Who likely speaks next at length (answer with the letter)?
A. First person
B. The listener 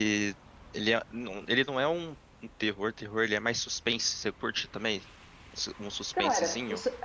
B